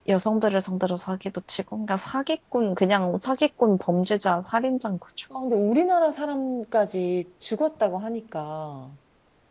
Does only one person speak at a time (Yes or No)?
Yes